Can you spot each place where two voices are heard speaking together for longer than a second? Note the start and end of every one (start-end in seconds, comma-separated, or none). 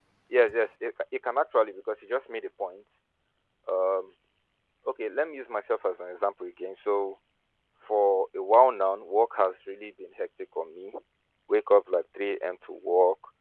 none